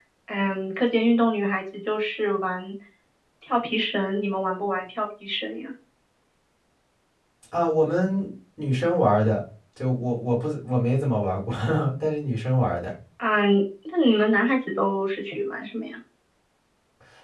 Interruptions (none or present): none